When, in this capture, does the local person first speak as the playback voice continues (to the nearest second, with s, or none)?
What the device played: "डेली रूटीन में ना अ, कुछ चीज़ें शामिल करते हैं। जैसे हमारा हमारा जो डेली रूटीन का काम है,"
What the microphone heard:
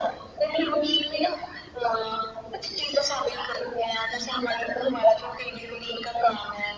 none